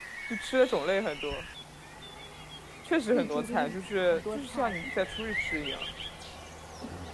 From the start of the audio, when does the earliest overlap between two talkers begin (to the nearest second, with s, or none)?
3 s